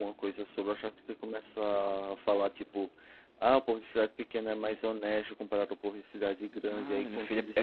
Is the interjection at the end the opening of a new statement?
Yes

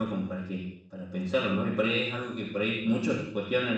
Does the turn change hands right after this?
No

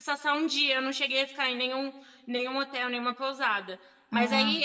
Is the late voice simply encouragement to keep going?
Yes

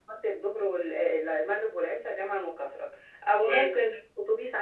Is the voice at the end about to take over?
No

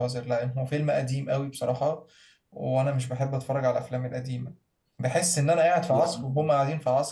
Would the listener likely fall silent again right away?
Yes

